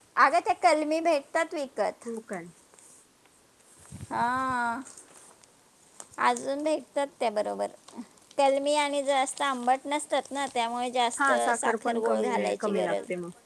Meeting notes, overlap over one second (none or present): present